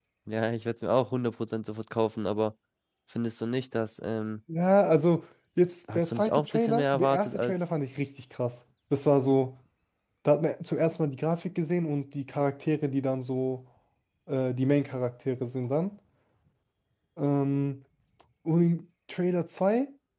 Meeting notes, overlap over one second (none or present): present